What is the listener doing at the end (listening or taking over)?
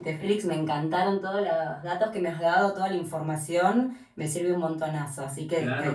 taking over